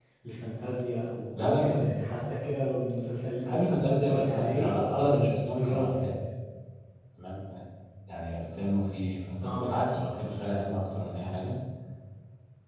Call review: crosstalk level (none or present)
present